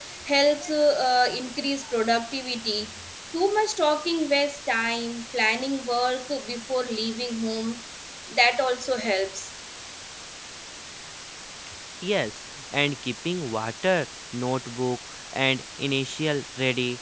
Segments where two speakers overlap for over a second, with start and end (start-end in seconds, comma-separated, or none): none